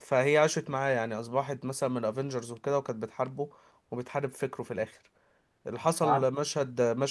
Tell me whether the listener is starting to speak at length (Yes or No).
No